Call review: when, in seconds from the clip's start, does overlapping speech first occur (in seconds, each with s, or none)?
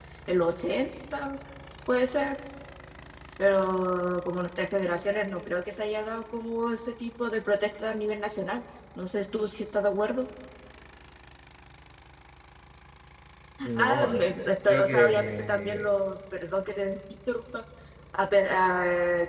13.8 s